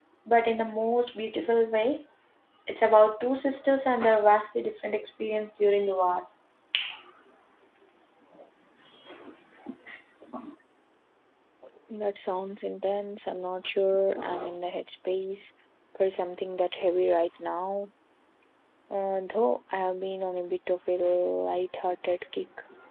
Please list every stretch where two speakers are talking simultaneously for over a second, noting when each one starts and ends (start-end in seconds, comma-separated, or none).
none